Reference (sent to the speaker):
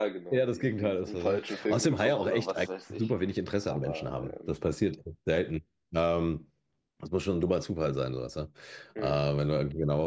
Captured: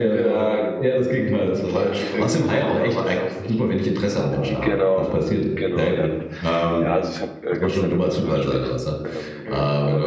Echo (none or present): present